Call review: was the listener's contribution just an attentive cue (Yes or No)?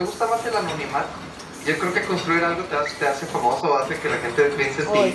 Yes